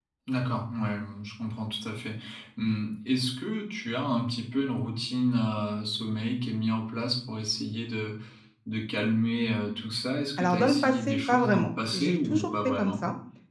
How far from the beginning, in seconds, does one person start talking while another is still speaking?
10.4 s

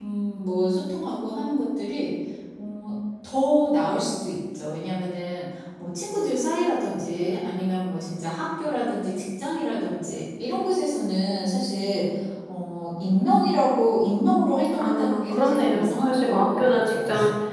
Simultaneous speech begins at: 14.7 s

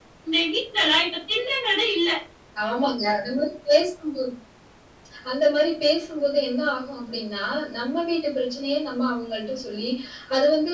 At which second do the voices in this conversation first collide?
none

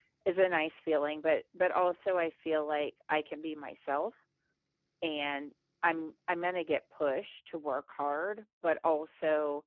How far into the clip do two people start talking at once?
none

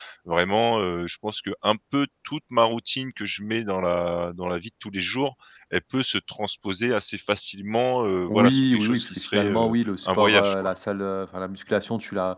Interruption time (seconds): 8.3 s

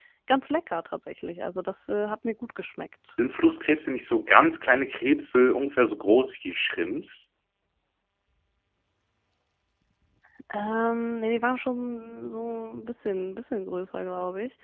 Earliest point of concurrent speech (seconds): none

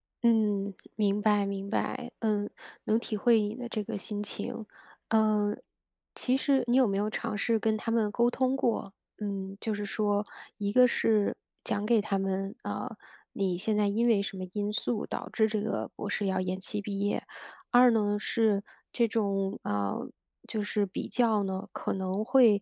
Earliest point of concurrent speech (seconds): none

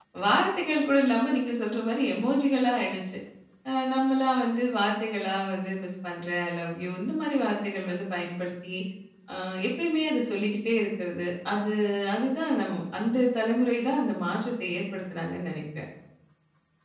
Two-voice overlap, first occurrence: none

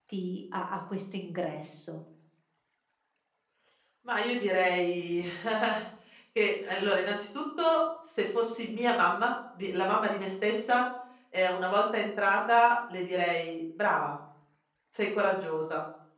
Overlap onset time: none

